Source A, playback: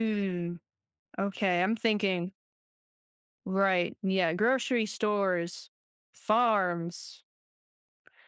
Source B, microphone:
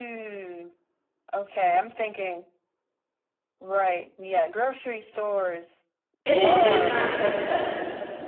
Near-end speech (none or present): present